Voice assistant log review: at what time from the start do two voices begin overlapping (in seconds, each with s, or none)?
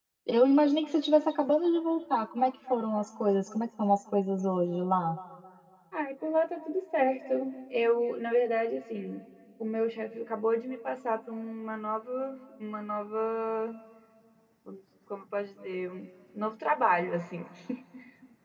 none